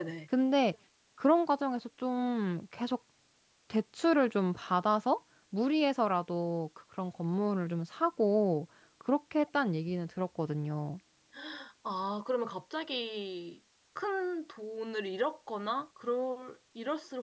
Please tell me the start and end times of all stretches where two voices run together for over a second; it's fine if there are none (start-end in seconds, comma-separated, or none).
none